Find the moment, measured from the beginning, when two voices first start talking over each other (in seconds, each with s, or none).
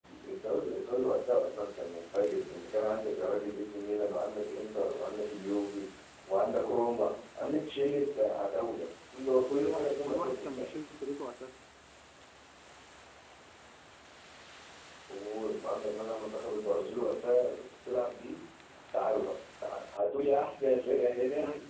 9.5 s